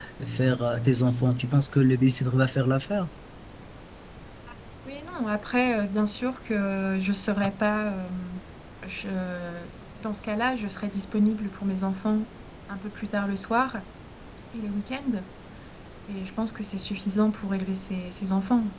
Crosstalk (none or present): none